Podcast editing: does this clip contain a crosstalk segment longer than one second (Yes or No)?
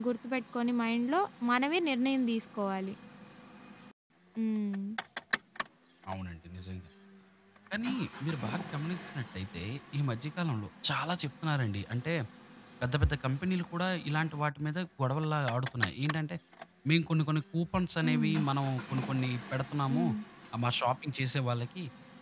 No